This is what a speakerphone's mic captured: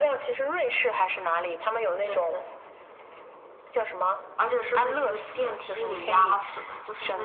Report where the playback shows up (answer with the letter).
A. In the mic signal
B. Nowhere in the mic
A